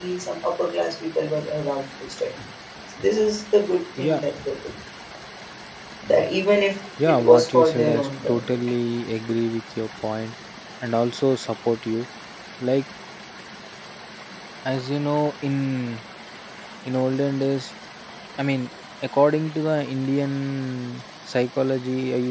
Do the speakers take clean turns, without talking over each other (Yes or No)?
No